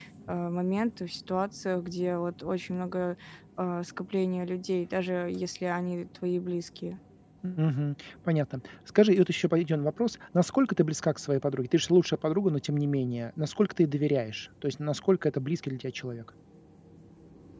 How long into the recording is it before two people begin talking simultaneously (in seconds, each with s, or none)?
none